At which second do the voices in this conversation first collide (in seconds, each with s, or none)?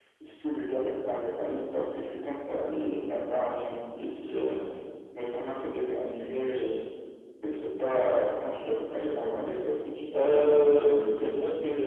10.1 s